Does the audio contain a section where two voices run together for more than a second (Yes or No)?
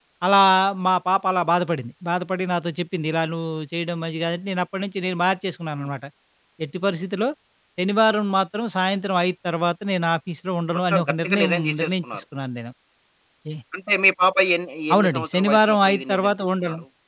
Yes